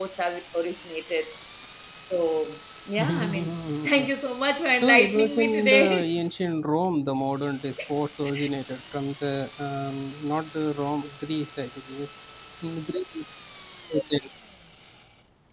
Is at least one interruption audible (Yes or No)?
Yes